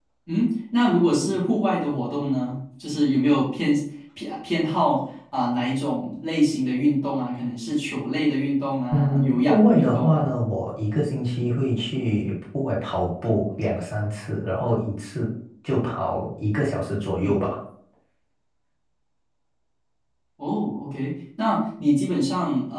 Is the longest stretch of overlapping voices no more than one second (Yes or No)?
No